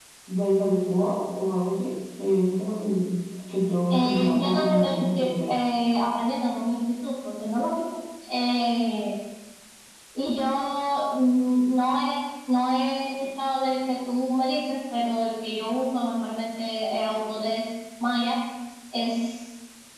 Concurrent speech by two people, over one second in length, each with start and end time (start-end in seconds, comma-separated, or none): 3.9-5.6